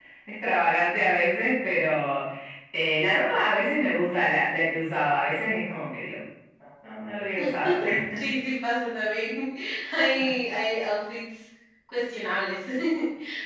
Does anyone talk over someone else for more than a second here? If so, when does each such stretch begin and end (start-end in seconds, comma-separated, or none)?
none